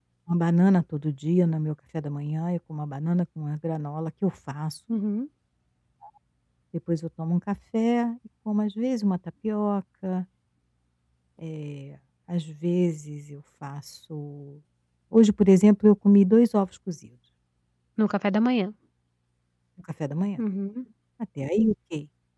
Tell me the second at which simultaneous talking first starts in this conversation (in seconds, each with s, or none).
none